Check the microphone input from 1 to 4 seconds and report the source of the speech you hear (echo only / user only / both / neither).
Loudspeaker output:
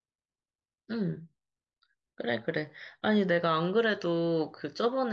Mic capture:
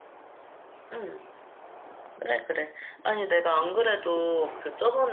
echo only